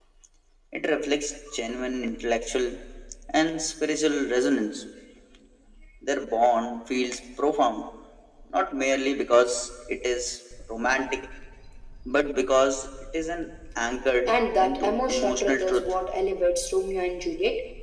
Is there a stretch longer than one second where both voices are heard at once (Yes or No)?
Yes